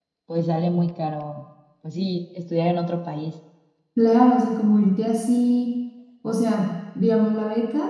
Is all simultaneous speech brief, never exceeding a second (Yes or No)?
Yes